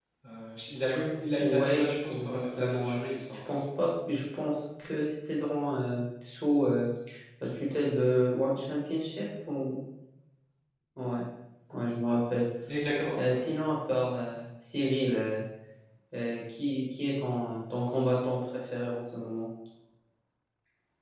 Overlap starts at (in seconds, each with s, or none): 1.4 s